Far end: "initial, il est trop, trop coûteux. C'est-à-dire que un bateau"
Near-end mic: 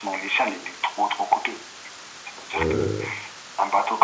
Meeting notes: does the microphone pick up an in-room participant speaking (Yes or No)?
Yes